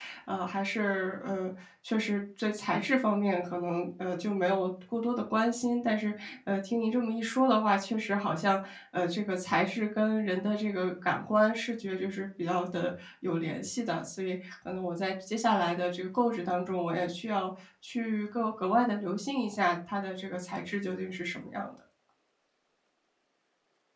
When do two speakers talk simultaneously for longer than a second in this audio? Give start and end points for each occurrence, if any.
none

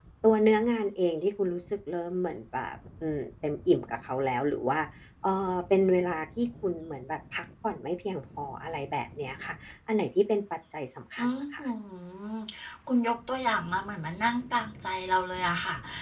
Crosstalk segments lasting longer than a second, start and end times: none

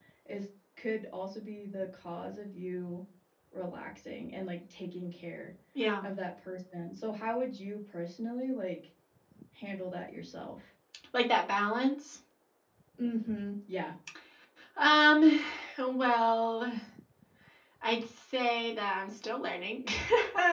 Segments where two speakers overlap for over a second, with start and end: none

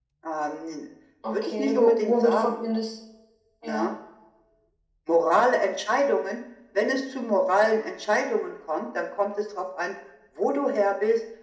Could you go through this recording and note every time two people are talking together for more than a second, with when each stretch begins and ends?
1.3-2.6

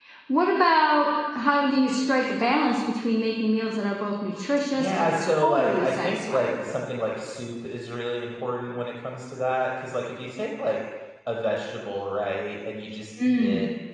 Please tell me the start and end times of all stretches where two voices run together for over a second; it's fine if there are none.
4.8-6.6

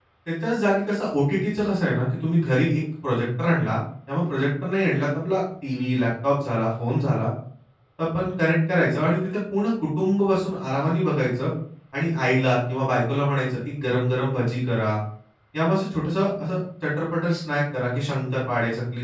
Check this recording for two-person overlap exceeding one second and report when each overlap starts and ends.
none

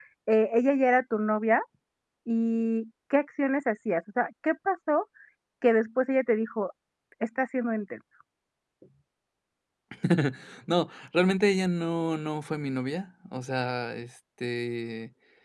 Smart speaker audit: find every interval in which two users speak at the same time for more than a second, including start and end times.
none

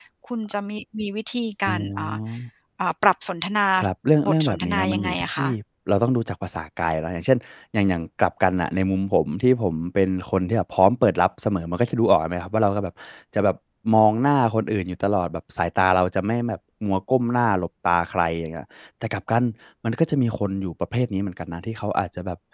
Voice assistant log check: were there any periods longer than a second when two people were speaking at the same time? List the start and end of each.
4.2-5.5

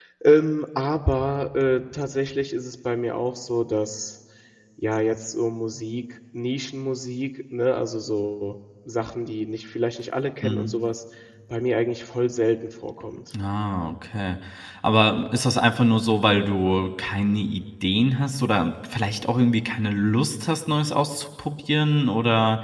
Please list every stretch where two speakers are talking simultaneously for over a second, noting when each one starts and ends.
none

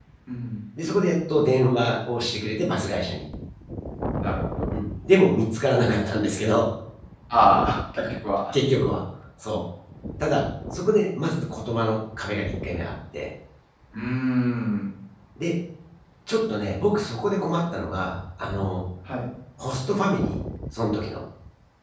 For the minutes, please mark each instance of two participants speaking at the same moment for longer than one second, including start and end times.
none

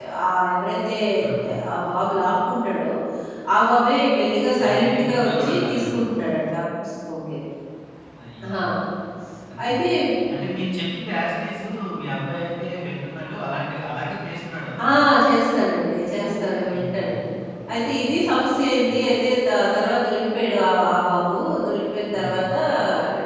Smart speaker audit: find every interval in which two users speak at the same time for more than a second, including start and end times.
4.6-5.9

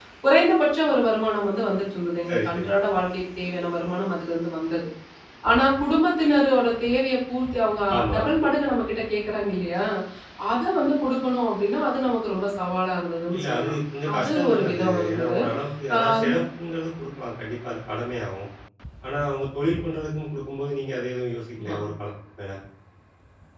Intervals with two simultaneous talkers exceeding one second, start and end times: 14.2-15.4

